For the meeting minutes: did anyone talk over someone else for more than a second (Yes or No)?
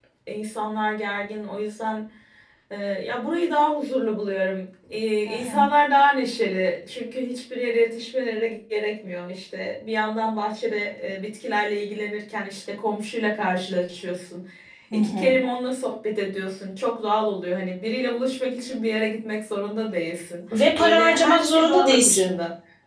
Yes